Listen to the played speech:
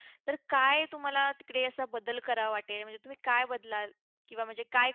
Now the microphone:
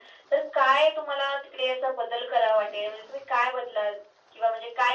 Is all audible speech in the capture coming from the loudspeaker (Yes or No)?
Yes